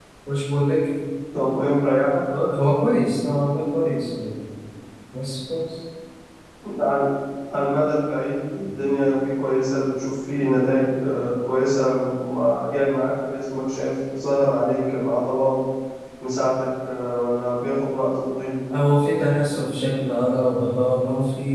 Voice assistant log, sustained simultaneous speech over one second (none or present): none